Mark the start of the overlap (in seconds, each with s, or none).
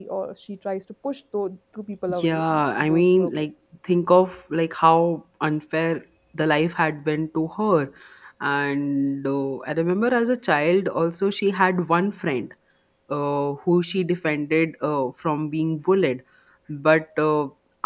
2.1 s